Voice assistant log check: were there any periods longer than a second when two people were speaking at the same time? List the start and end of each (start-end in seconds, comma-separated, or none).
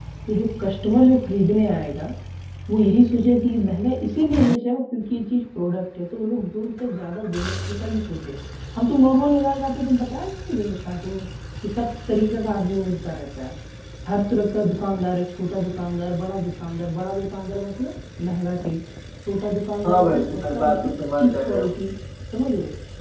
19.8-21.7